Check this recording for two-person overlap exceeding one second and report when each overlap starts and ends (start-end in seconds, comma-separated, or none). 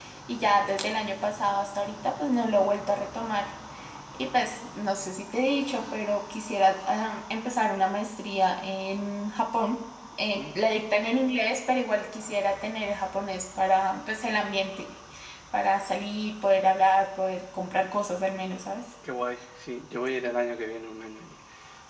none